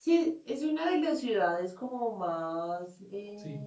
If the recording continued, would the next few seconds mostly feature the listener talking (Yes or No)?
No